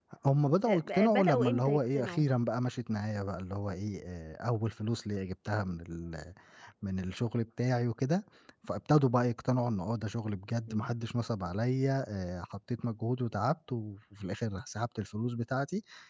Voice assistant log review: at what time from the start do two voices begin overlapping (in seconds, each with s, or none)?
0.7 s